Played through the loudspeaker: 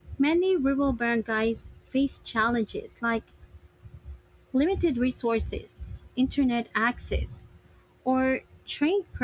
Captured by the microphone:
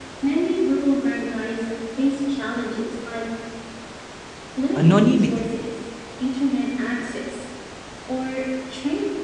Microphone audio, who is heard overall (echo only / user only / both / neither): both